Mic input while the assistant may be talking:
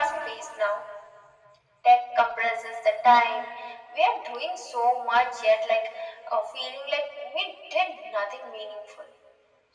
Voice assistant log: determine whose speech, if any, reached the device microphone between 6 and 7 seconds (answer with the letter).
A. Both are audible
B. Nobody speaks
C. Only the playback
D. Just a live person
C